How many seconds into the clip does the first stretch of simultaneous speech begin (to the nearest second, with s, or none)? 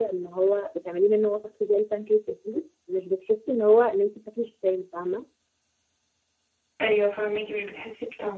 none